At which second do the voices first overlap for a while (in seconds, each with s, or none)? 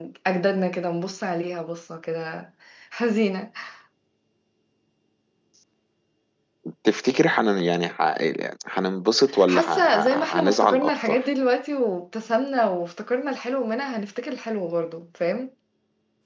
9.4 s